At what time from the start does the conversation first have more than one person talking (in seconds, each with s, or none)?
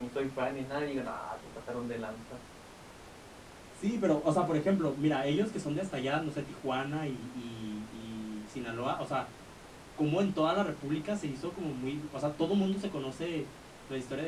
none